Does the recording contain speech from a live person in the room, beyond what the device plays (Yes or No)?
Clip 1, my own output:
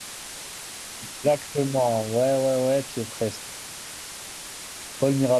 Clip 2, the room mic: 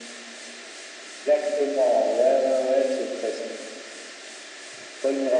No